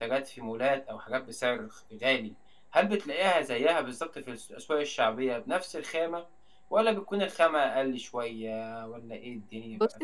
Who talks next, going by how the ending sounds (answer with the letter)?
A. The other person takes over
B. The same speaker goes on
A